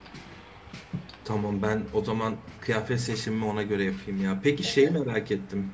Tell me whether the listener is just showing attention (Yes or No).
Yes